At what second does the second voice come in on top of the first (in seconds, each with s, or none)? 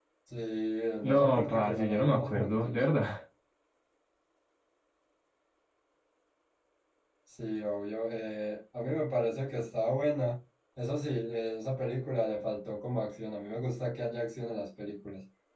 1.0 s